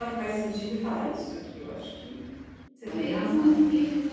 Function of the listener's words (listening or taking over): taking over